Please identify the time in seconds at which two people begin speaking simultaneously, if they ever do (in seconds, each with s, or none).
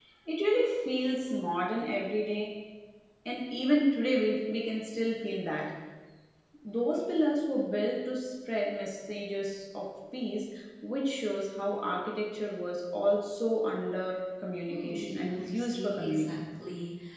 14.7 s